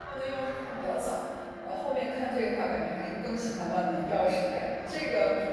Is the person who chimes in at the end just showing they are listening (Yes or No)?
Yes